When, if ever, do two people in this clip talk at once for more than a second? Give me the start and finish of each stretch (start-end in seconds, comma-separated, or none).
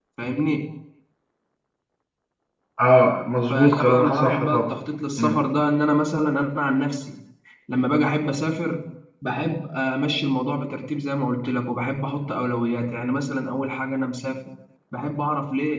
3.5-4.7